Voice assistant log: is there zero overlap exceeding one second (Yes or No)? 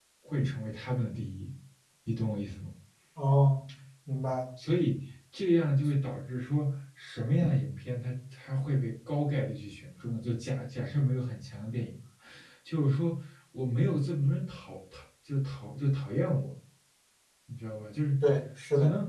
Yes